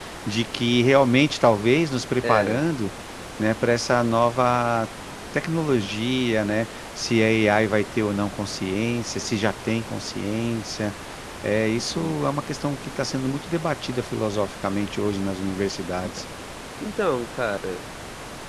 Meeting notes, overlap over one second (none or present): none